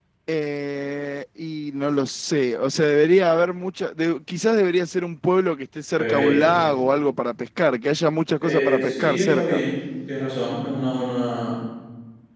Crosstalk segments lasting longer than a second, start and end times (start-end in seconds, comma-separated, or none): 8.4-9.6